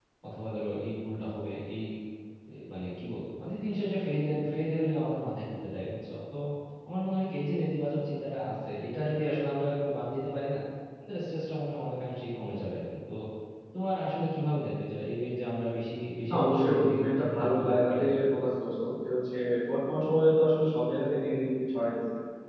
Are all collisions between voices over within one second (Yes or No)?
No